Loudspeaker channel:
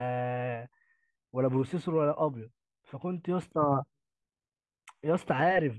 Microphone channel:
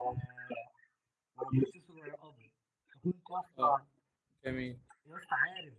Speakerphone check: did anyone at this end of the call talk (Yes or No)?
Yes